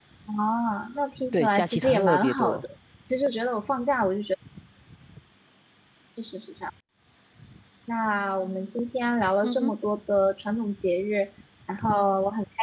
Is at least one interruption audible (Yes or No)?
Yes